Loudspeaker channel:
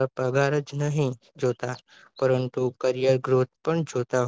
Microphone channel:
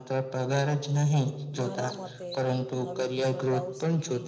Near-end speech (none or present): present